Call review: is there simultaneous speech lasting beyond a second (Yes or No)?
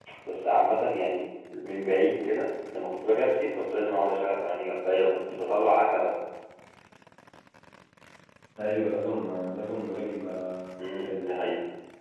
No